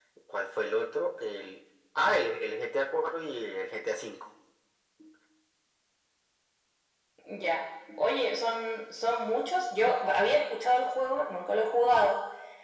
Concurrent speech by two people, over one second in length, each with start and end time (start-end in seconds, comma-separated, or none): none